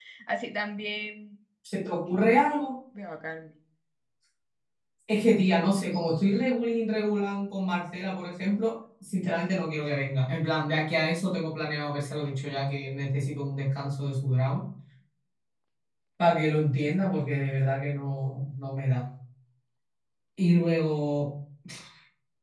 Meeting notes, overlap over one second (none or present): none